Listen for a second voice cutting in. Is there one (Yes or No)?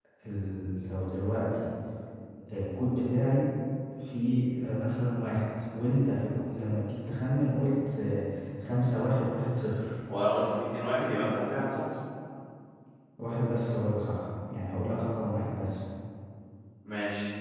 No